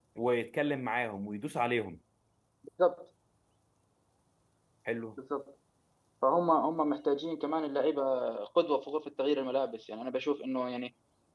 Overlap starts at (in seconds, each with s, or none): none